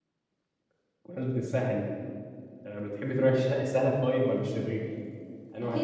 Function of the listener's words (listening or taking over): taking over